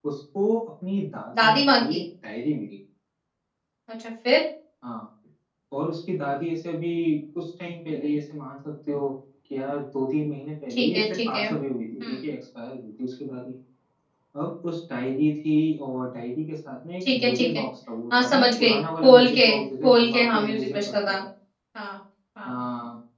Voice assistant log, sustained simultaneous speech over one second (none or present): present